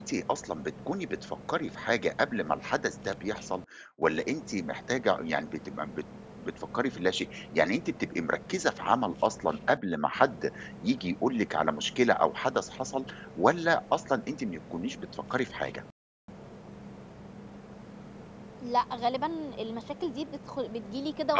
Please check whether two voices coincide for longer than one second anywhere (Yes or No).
No